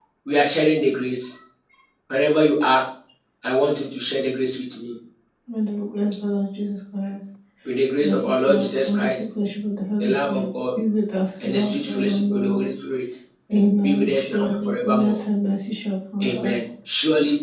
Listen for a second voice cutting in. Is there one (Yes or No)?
Yes